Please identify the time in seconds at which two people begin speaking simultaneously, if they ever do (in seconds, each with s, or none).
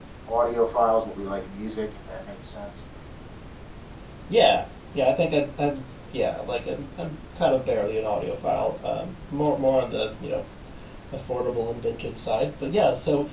none